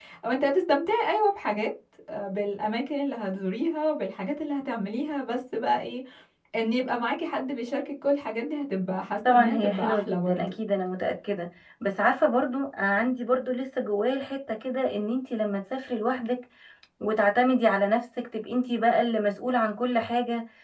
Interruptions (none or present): present